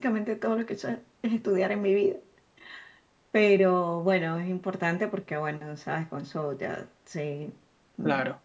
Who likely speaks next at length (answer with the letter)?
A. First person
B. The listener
A